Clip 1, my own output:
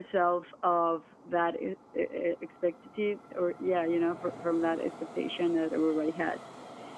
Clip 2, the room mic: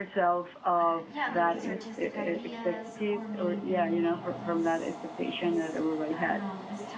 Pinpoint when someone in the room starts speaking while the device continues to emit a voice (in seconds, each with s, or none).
0.8 s